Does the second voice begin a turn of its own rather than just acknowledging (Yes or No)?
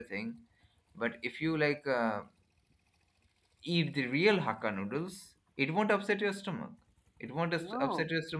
No